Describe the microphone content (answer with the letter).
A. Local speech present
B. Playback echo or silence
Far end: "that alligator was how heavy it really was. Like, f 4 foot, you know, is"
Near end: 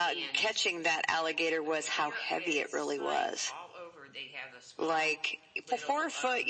A